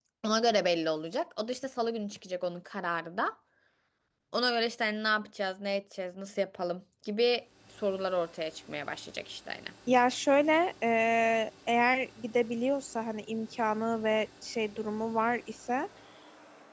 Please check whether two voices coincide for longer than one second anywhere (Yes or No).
No